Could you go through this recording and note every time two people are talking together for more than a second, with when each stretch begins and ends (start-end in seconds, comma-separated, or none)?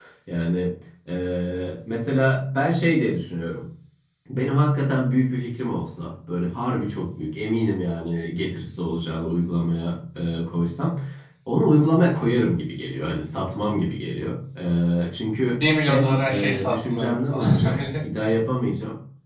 15.9-17.8